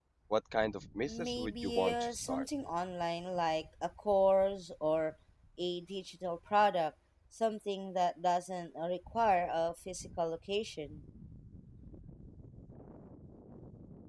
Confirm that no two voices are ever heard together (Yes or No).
No